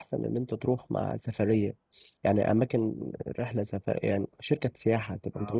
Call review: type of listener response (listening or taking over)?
taking over